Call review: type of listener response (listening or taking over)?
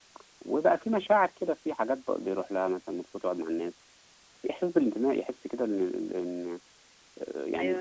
taking over